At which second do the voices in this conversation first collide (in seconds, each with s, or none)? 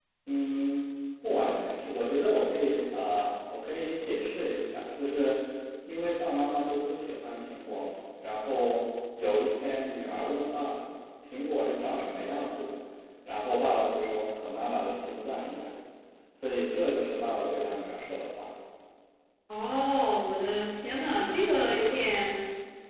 none